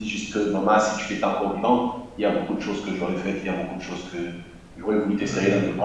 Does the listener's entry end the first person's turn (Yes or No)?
No